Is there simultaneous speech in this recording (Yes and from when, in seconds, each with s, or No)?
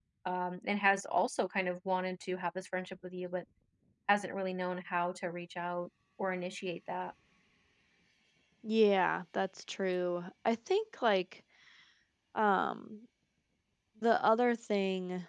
No